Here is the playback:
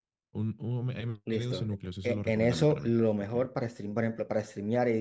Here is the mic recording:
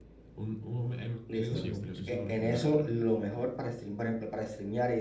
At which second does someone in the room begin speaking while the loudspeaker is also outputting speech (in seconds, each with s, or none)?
1.5 s